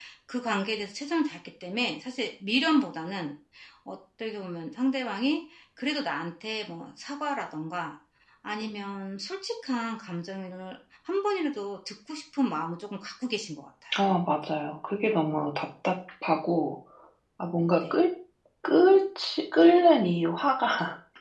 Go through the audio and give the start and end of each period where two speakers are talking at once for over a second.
none

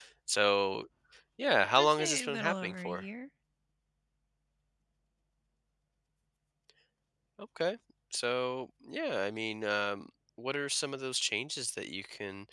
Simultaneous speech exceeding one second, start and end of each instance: 1.8-3.0

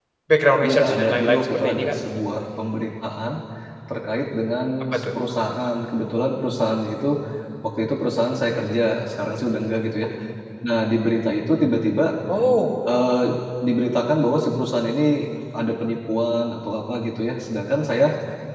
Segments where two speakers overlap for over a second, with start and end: 0.6-1.9

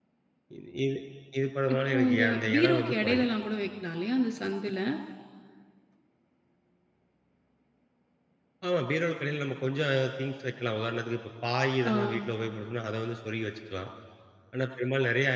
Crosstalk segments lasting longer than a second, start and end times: 1.7-3.2

